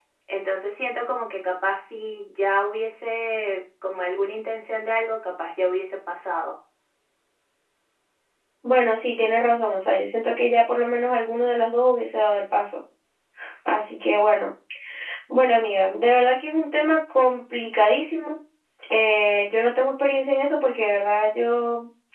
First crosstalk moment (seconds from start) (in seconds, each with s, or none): none